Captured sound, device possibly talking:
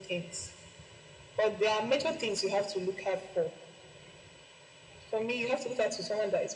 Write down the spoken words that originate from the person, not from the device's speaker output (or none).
none